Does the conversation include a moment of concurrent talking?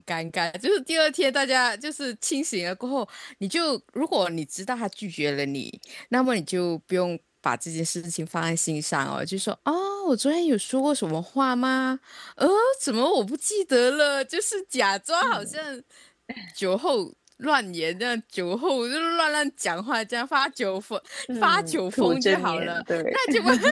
Yes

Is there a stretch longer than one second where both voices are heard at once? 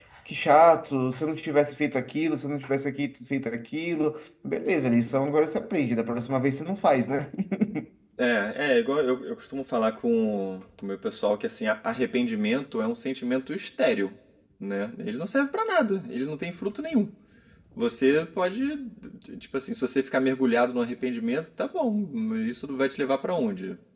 No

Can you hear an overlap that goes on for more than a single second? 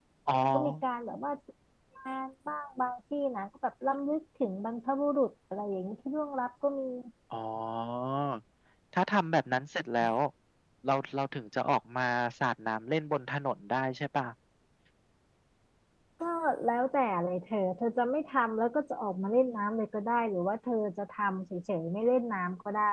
No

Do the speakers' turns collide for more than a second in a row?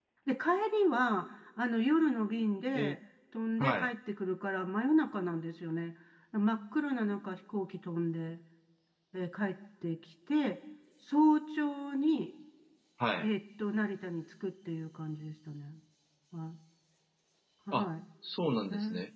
No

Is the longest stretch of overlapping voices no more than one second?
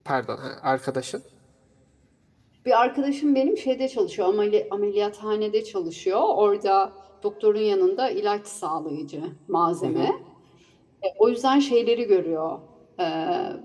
Yes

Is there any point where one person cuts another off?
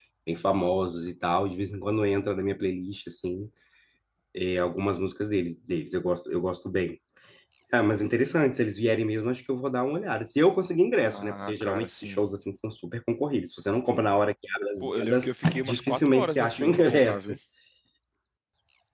Yes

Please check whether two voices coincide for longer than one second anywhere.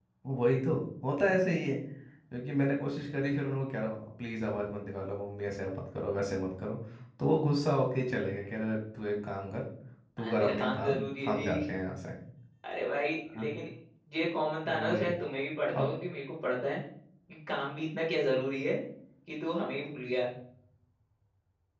Yes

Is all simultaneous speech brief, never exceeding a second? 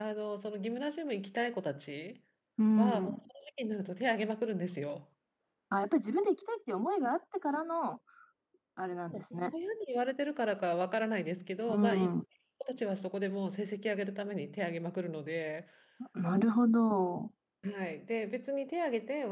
Yes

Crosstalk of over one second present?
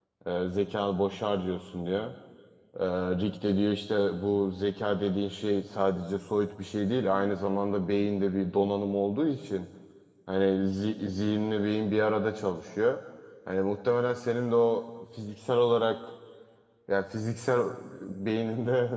No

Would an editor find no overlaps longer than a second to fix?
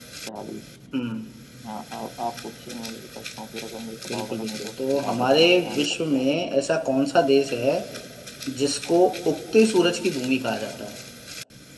No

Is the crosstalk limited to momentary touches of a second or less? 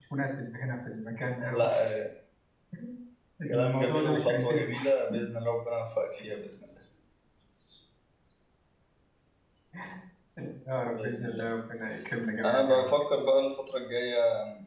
No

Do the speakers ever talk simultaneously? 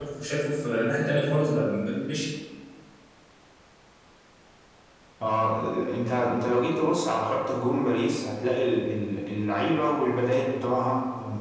No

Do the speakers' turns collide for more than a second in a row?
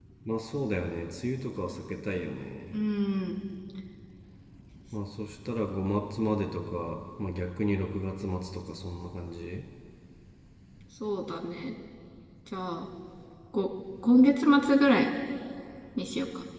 No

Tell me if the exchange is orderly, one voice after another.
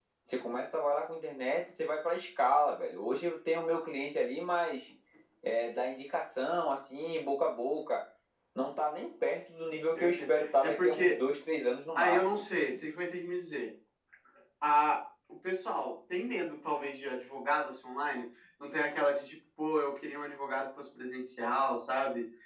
No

